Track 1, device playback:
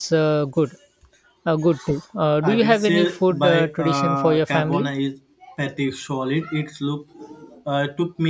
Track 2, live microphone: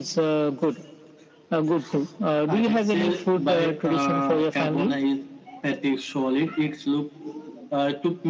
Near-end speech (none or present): none